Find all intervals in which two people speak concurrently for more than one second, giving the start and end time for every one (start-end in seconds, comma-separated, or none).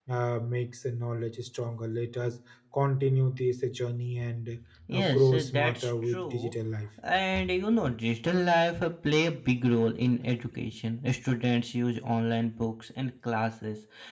4.9-6.5